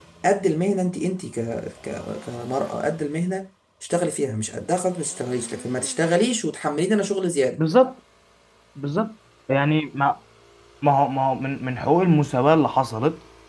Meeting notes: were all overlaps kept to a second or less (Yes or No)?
Yes